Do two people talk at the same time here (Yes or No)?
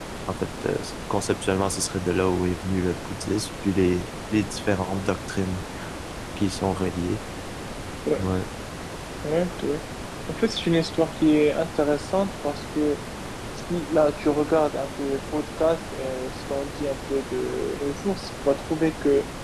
No